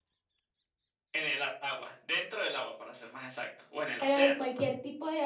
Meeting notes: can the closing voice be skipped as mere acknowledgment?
No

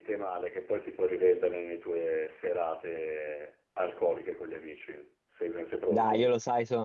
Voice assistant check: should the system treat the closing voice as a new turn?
Yes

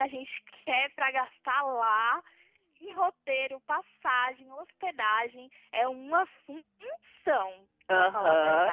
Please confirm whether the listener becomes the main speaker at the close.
Yes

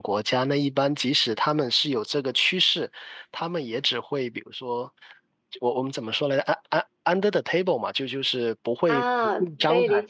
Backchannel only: No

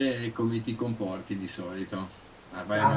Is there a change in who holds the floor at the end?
No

